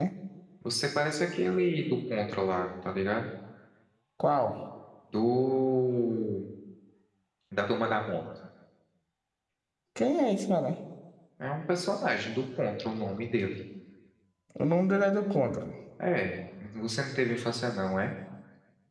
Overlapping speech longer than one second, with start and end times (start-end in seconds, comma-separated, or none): none